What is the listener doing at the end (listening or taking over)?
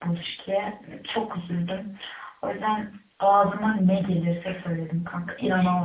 taking over